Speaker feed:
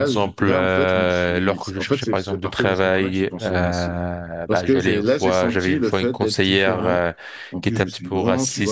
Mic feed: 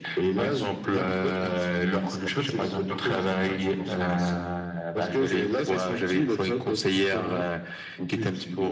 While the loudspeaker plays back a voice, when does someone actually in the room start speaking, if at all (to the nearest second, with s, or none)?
none